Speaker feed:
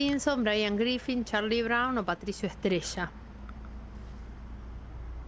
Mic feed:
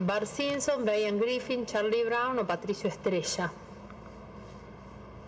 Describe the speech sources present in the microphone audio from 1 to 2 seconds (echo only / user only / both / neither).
echo only